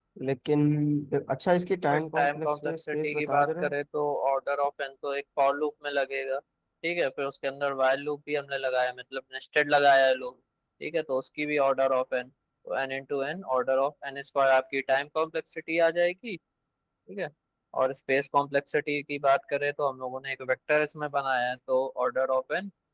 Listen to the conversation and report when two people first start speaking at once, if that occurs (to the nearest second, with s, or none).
2 s